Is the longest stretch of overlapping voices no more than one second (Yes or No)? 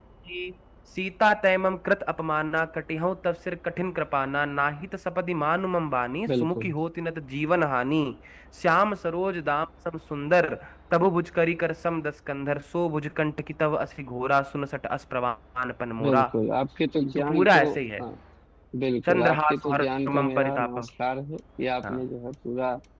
No